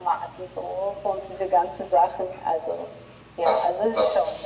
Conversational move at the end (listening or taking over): taking over